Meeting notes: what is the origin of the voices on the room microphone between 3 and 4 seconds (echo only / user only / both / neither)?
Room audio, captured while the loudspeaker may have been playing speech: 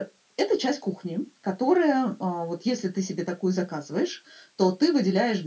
echo only